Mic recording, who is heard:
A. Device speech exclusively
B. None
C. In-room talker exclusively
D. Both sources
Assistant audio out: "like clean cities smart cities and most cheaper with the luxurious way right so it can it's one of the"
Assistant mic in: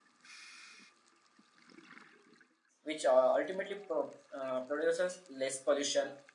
C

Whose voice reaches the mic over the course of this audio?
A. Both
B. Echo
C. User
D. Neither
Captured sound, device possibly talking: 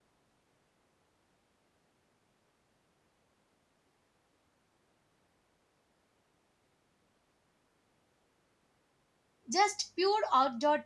C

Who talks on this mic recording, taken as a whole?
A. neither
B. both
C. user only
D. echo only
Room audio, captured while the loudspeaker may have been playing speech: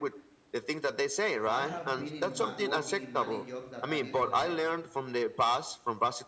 B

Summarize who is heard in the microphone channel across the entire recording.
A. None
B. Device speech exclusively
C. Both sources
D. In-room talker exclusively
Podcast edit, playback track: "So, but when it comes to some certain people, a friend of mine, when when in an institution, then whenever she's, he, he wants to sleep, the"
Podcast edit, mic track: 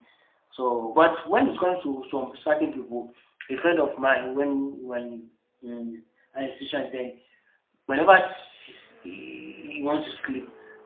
B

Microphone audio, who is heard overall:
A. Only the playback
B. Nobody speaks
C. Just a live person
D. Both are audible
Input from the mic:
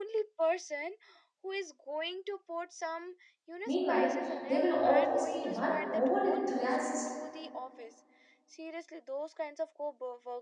D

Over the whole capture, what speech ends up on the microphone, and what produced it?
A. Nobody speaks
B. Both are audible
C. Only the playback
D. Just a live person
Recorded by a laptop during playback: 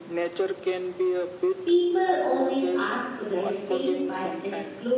B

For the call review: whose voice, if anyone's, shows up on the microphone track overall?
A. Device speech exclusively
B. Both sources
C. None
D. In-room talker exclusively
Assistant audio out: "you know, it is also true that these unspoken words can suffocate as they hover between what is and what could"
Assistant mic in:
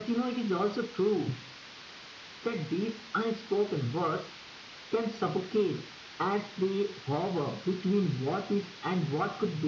A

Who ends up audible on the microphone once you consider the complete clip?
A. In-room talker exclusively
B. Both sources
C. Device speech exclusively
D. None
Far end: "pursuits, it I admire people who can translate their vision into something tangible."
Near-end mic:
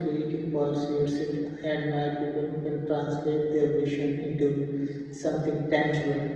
C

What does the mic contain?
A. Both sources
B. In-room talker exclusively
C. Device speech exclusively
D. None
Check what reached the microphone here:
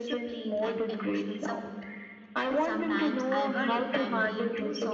A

